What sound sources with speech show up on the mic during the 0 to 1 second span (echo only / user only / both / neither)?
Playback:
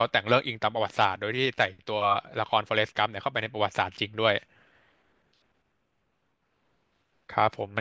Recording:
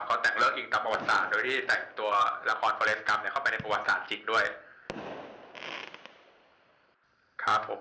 echo only